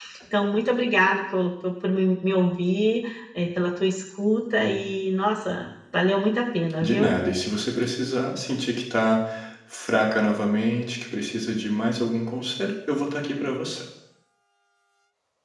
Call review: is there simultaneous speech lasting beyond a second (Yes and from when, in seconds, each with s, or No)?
No